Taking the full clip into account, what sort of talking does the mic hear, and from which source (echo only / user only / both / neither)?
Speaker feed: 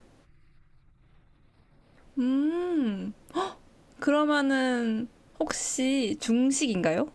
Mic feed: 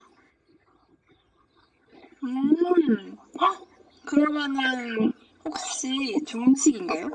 echo only